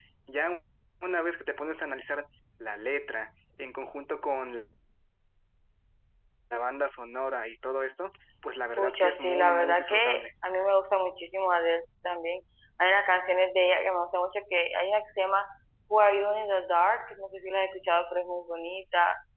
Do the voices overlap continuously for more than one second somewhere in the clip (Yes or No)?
Yes